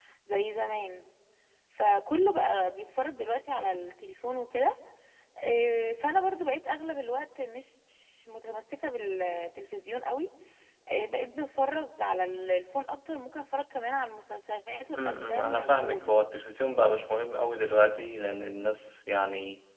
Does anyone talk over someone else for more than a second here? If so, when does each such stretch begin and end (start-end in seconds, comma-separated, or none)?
14.9-16.2